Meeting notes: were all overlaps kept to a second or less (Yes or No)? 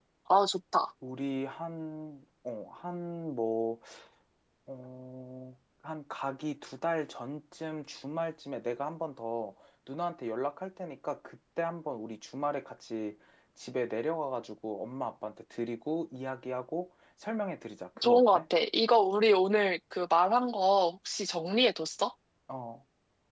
Yes